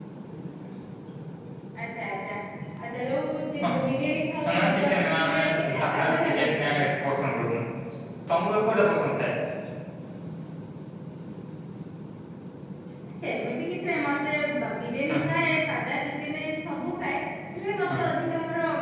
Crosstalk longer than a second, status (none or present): present